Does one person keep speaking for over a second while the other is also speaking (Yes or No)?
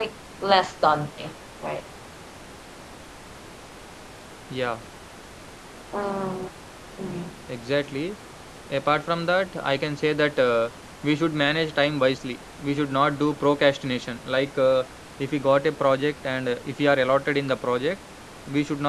No